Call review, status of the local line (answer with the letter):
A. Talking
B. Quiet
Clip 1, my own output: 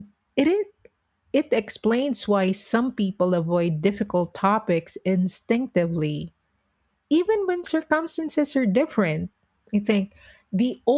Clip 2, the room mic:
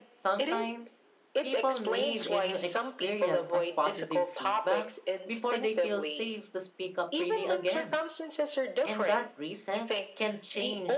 A